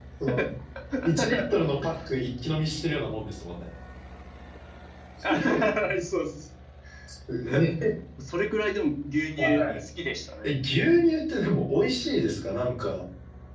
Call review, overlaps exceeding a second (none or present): none